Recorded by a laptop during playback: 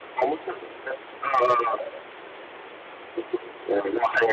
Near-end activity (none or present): none